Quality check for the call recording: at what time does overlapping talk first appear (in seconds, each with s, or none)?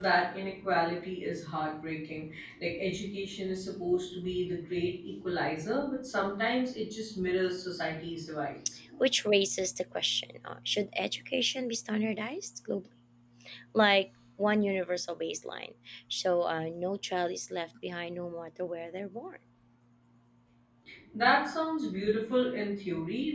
none